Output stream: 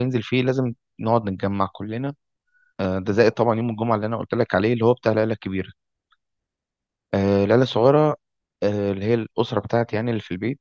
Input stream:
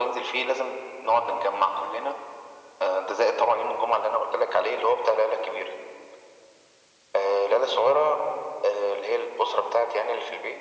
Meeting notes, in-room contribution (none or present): none